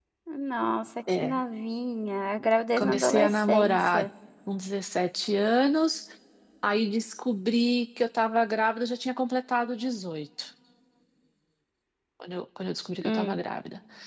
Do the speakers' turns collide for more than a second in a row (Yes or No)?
Yes